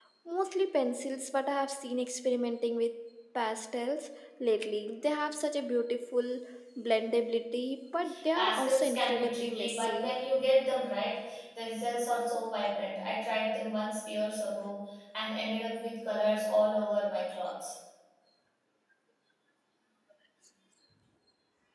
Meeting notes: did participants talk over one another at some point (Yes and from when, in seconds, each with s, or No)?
Yes, from 8.4 s